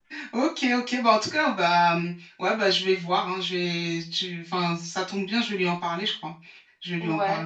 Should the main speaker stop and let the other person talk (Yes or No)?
Yes